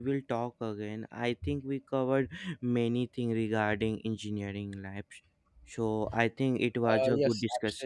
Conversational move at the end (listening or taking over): taking over